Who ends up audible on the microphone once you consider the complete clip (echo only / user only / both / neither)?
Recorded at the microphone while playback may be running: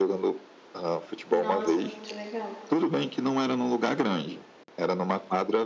both